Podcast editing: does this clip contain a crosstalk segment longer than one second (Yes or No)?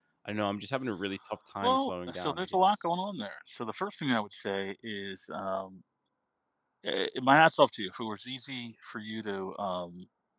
Yes